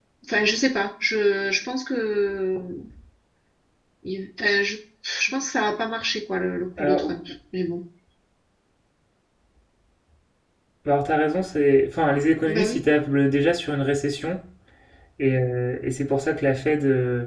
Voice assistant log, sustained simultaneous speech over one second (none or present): none